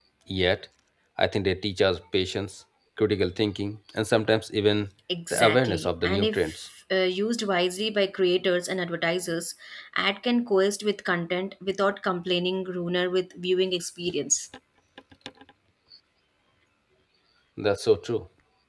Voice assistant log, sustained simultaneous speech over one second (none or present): present